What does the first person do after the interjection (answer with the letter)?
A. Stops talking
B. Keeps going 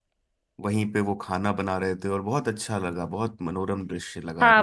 A